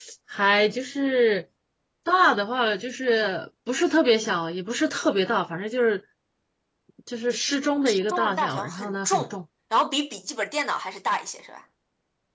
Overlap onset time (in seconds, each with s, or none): 7.8 s